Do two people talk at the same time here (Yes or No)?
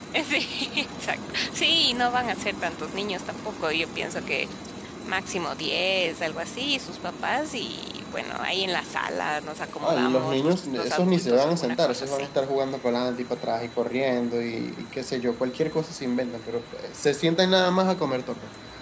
Yes